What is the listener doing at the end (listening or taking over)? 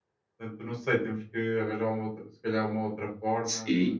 taking over